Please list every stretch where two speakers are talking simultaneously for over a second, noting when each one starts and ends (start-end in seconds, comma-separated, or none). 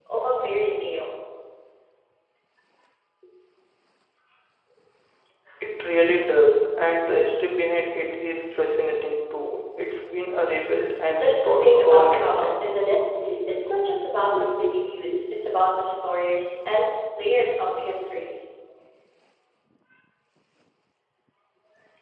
11.2-12.6